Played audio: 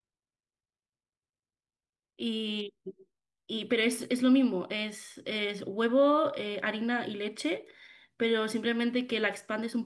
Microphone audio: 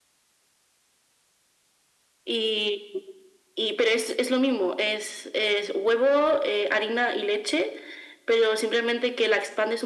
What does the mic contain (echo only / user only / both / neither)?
echo only